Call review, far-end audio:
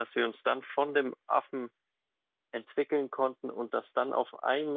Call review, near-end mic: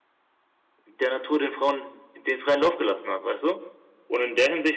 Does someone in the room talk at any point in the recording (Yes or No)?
Yes